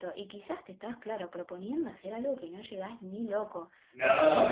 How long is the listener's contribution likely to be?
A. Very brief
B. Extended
A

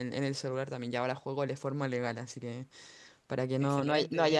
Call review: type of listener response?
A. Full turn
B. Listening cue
B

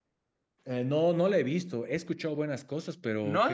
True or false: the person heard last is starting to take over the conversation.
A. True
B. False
A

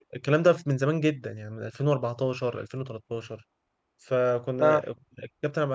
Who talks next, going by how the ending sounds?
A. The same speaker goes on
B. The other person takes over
A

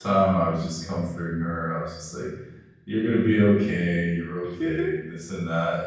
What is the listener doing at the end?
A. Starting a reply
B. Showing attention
B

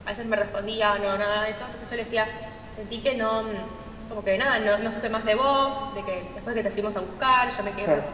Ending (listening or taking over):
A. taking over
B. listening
A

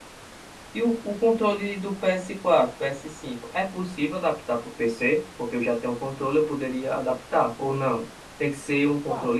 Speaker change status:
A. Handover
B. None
B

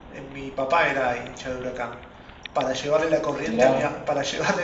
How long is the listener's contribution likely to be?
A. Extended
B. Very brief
B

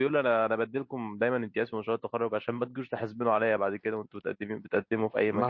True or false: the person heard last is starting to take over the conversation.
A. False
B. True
B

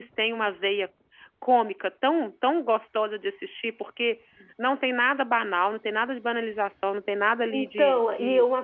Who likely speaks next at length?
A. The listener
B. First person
A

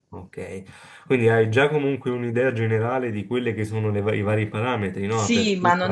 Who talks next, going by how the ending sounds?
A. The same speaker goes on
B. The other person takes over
B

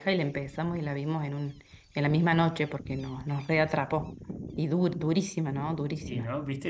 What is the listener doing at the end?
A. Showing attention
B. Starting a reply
B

